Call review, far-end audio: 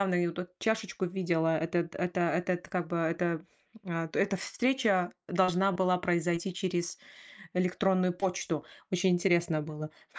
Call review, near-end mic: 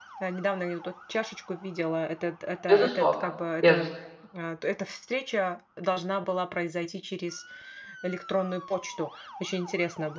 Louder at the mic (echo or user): user